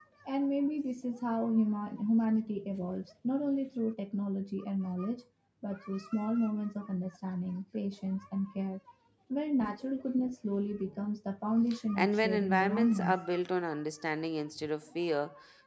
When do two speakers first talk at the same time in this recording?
12 s

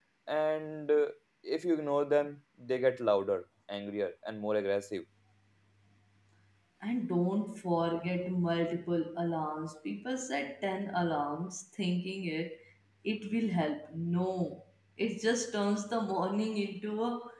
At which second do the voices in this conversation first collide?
none

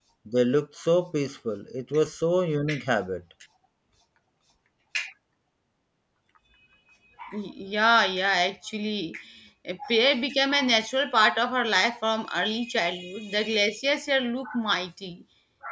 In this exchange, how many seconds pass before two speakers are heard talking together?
none

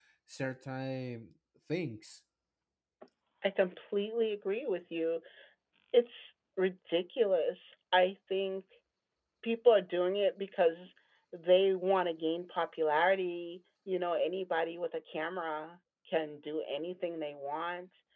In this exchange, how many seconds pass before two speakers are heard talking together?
none

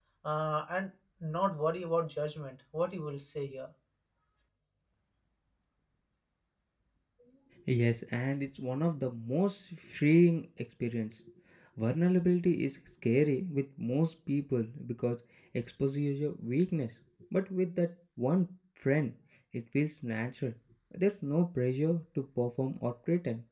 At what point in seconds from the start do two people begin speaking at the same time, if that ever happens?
none

